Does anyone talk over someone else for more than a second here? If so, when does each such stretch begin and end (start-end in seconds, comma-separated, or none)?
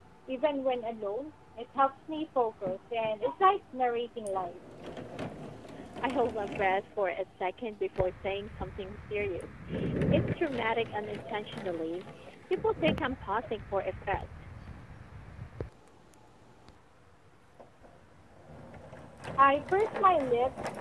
none